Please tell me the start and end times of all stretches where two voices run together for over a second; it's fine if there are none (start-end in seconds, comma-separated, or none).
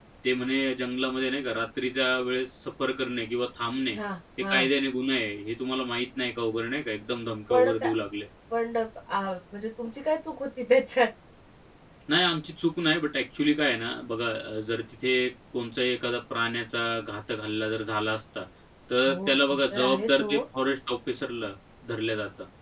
19.1-20.3